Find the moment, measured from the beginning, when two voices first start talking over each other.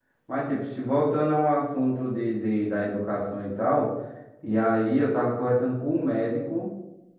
none

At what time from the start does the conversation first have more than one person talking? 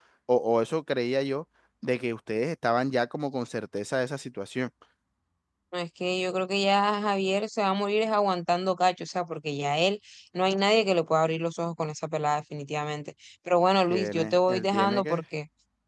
13.9 s

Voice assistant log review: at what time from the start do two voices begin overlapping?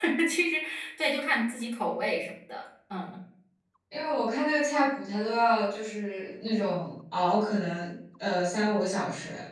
none

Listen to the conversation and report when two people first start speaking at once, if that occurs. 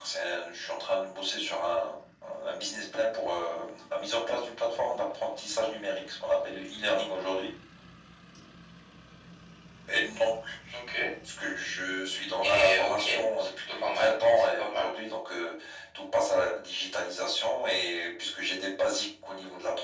12.4 s

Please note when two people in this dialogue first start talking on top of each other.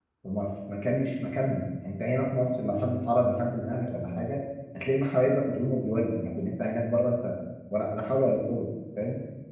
none

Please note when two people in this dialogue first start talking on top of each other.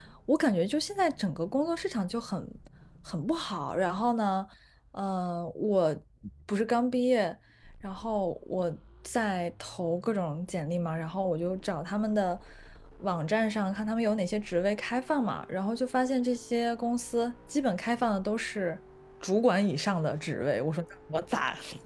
none

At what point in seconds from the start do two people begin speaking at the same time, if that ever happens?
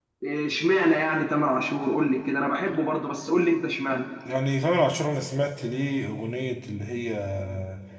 none

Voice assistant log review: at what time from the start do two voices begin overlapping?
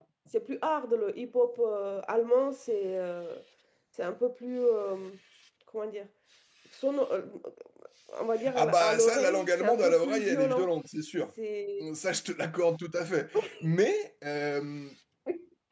8.5 s

